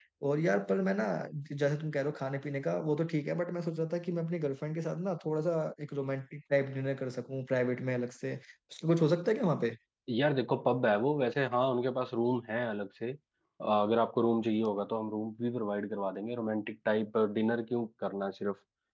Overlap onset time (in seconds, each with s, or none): none